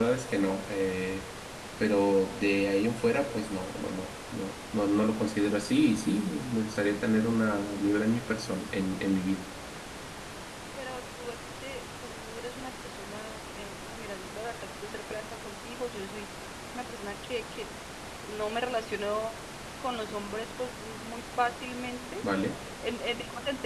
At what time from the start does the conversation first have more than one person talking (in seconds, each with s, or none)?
none